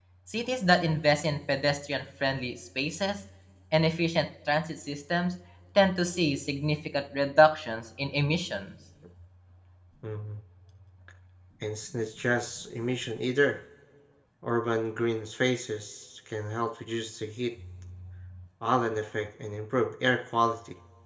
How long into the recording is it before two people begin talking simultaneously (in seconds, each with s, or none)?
none